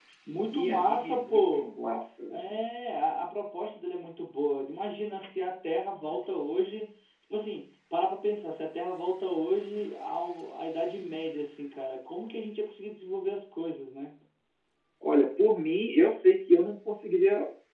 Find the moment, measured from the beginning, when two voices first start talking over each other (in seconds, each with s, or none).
0.5 s